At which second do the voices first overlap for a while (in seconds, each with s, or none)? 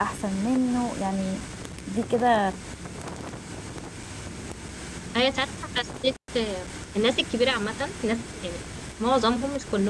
none